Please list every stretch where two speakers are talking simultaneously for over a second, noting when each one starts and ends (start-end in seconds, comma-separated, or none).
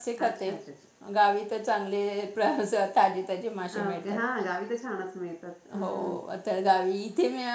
none